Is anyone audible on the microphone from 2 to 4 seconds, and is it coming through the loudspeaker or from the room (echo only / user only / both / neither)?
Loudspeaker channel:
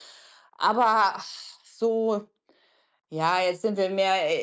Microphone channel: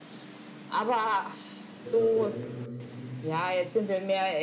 both